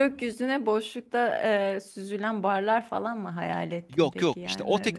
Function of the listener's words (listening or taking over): taking over